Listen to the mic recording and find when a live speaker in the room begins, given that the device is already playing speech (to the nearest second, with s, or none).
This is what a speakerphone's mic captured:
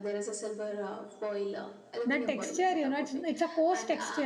2 s